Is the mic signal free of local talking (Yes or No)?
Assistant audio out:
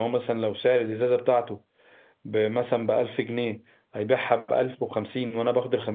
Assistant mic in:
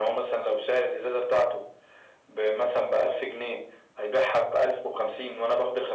Yes